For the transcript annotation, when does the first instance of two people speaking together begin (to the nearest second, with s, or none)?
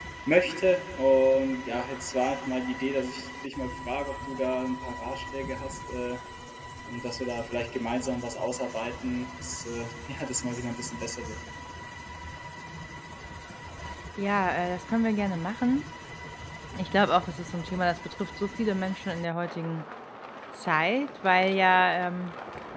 none